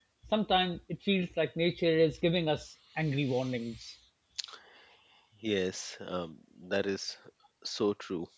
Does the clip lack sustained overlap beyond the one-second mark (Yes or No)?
Yes